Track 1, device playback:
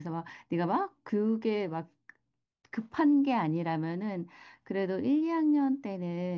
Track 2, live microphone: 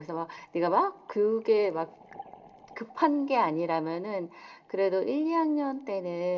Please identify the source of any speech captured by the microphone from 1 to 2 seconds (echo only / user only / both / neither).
echo only